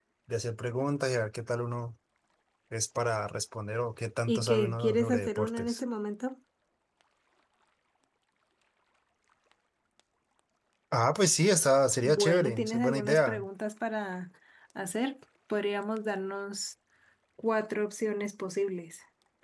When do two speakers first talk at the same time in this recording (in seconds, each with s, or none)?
4.3 s